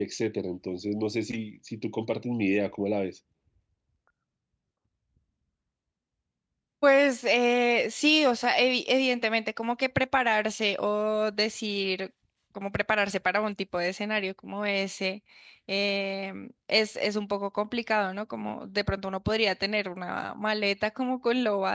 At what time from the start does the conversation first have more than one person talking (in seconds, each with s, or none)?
none